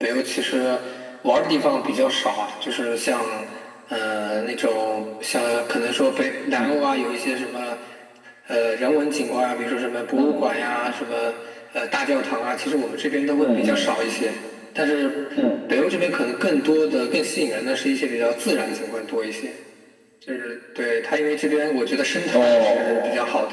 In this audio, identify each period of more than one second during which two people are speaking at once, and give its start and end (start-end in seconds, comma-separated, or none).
none